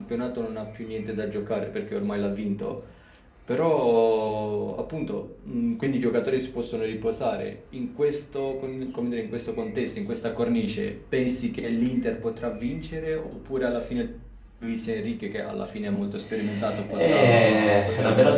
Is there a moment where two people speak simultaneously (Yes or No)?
Yes